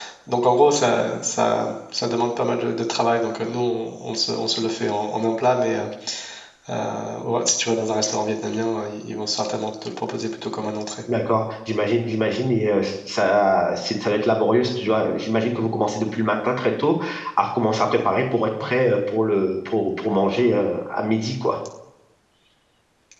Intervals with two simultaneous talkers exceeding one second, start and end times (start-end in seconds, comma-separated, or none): none